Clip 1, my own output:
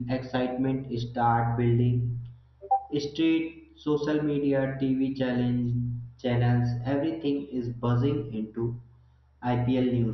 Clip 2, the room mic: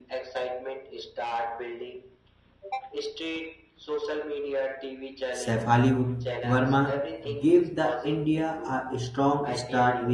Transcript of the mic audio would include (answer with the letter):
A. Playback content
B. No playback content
A